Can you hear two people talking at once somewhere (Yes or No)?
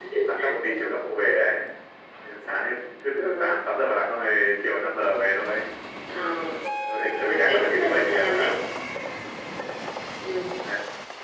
Yes